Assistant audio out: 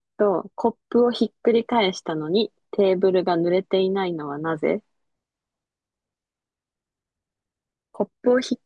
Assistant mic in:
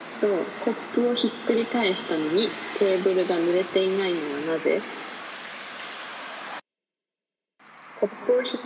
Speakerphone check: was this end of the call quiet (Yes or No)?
Yes